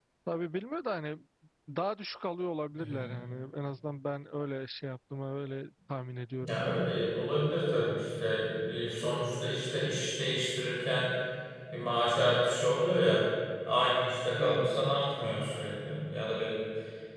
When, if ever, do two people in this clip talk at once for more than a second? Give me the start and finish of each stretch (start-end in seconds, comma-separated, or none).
none